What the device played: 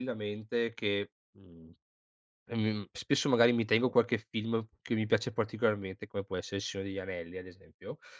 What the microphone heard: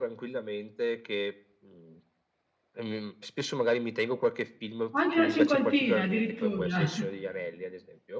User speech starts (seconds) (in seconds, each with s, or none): 4.9 s